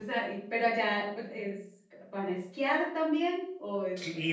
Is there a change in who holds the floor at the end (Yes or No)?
Yes